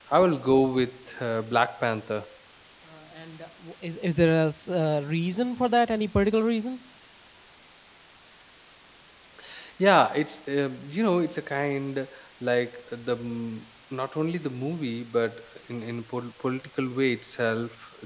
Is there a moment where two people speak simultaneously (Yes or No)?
No